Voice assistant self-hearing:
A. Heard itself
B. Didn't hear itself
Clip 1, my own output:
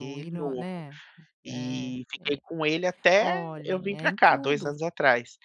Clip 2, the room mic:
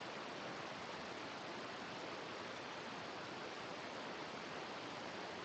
B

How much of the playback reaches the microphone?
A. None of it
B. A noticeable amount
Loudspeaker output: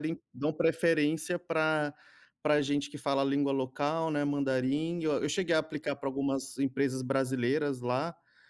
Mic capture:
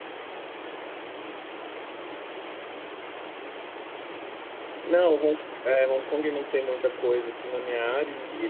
A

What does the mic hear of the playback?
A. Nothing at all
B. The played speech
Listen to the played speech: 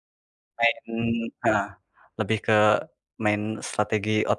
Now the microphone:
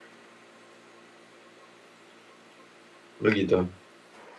A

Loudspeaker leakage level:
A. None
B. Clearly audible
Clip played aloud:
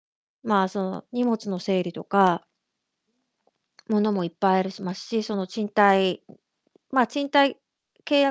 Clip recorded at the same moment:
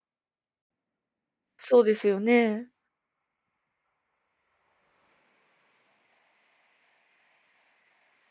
A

